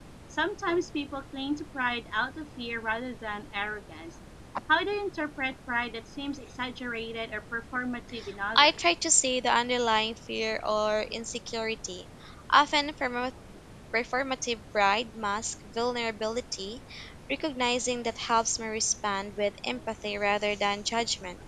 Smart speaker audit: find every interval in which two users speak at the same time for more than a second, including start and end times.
none

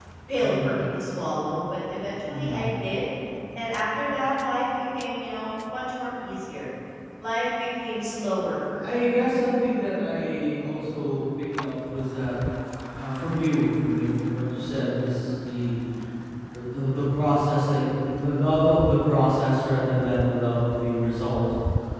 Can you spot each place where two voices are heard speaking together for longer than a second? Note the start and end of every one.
none

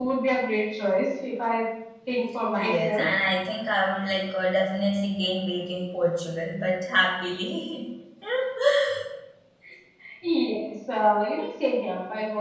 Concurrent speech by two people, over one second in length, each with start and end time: none

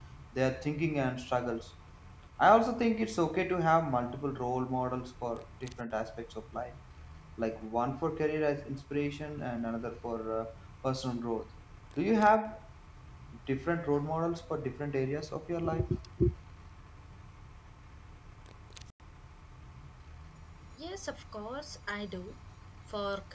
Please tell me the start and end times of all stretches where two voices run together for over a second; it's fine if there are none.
none

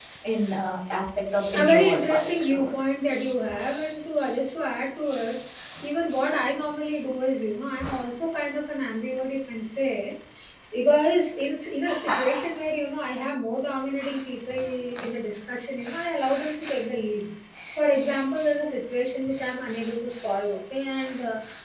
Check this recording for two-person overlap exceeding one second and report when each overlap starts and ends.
1.5-2.7

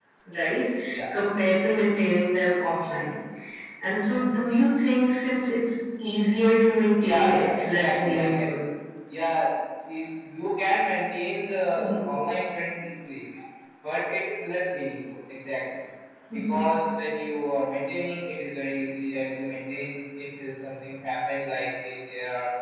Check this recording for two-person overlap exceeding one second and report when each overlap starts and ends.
7.0-8.5

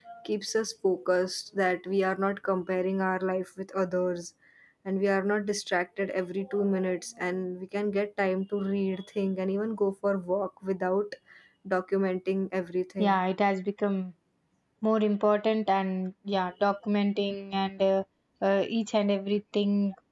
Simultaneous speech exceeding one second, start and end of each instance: none

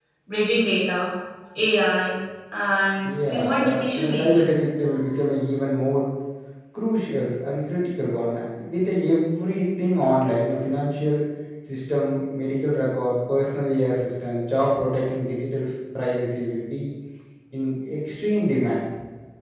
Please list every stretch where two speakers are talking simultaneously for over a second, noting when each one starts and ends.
3.3-4.5

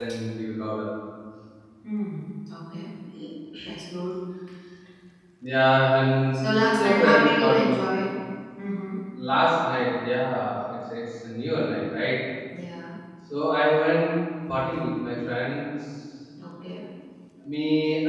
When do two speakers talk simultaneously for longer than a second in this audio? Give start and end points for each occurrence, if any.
6.3-7.8

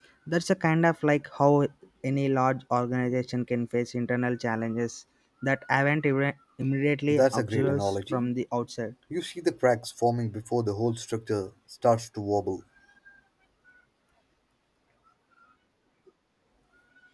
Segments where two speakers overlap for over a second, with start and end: 7.1-8.3

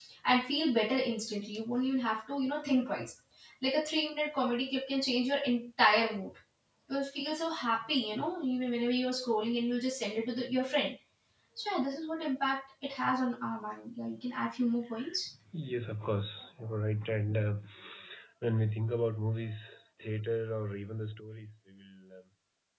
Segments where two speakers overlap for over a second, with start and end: none

